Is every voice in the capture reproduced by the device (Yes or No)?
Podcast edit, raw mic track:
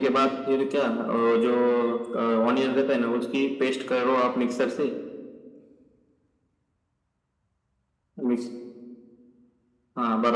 Yes